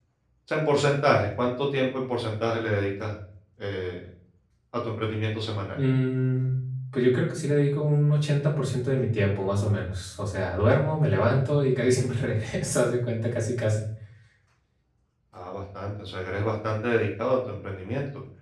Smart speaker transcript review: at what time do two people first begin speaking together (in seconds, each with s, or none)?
none